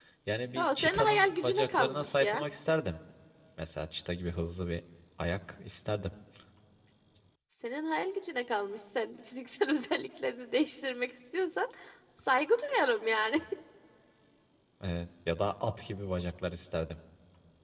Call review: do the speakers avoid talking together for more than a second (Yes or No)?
No